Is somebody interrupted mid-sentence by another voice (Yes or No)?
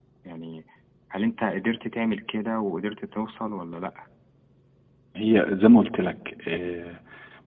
No